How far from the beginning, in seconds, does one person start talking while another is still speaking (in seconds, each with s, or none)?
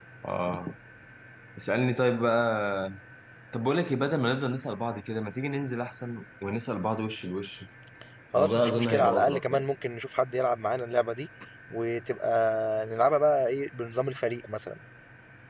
8.4 s